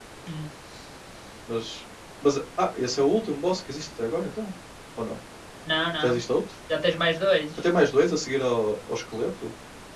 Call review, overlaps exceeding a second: none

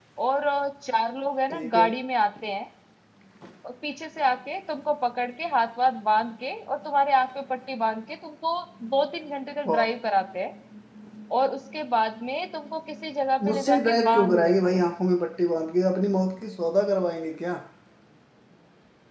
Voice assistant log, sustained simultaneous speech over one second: present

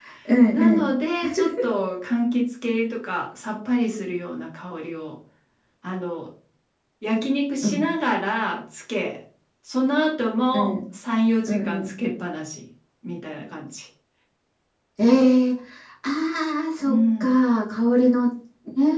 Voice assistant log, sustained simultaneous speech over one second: none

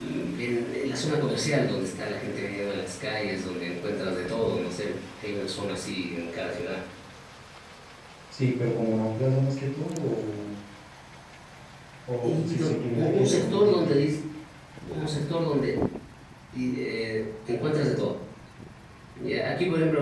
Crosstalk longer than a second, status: present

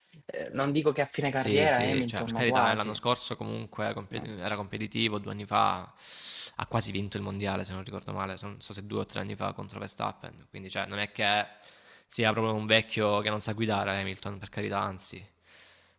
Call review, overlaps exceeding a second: present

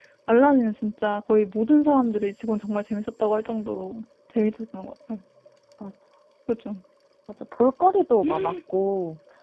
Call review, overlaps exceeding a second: none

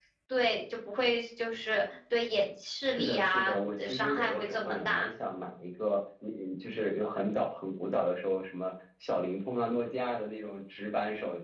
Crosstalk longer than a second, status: present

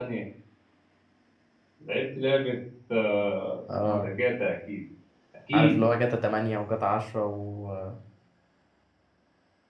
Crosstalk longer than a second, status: none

